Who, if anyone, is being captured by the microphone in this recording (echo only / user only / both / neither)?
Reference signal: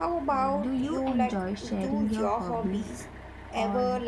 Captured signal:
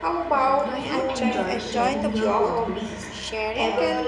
both